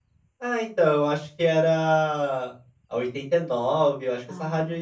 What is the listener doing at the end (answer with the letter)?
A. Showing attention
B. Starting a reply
A